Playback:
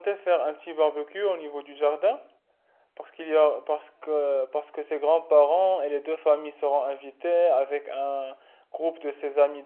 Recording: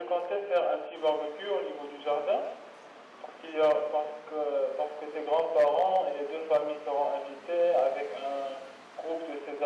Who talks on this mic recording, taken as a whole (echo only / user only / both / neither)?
echo only